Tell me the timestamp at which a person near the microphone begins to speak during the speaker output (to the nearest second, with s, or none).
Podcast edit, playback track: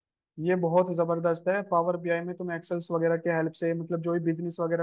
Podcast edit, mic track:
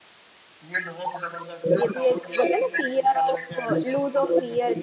2 s